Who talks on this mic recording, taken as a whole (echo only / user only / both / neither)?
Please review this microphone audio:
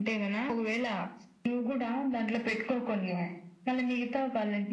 echo only